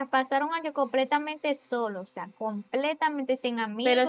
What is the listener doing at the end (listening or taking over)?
taking over